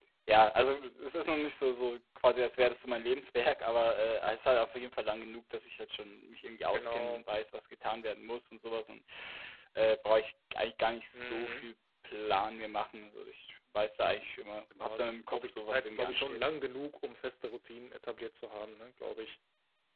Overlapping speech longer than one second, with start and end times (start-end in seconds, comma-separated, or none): 14.7-16.4